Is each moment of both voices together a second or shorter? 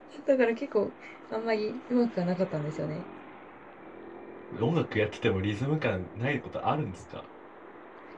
Yes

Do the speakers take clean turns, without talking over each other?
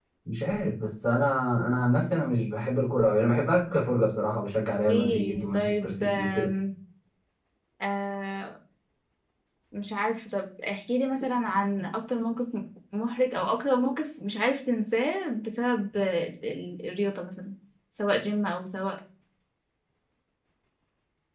No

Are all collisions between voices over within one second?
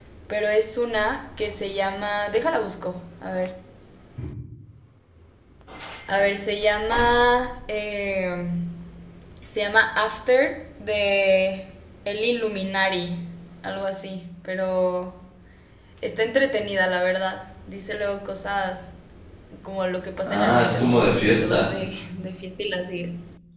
No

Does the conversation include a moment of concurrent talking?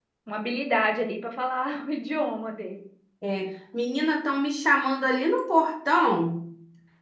No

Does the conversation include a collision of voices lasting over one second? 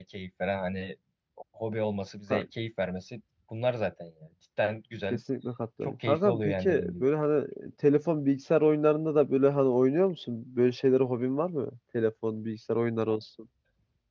Yes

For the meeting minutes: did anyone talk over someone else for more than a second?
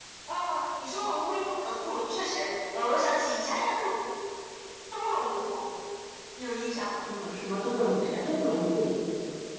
No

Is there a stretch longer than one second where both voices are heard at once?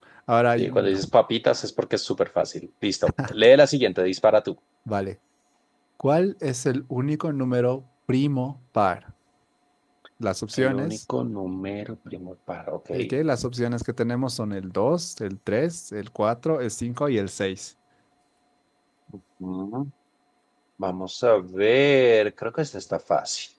No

